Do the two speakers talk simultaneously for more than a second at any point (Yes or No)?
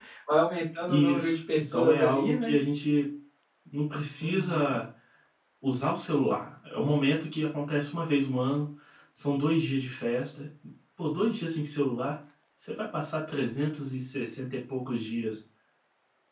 Yes